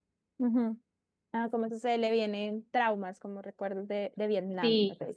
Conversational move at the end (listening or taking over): taking over